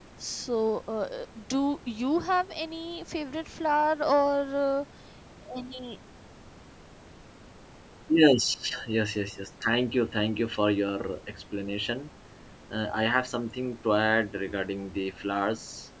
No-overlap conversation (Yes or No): Yes